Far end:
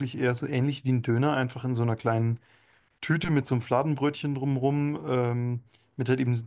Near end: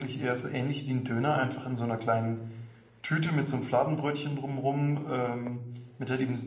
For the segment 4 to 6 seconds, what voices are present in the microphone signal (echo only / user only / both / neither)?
echo only